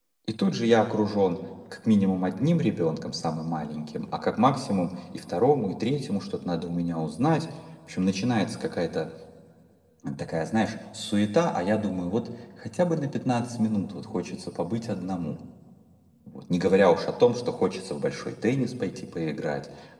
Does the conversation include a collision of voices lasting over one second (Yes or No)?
No